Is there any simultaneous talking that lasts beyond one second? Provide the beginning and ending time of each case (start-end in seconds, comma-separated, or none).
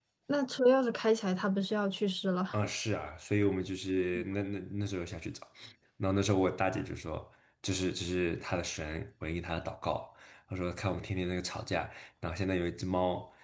none